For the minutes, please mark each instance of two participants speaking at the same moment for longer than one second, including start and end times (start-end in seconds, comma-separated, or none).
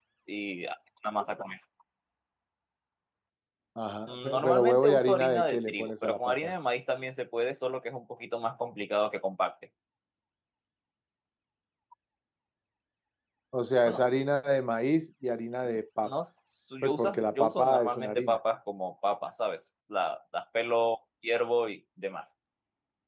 4.1-6.5, 16.8-18.4